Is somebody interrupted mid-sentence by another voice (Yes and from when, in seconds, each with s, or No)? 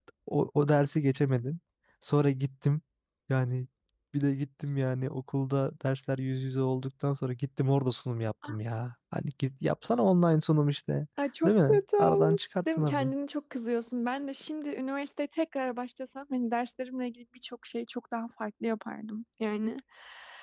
Yes, from 11.4 s